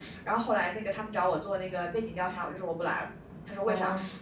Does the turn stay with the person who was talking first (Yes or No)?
Yes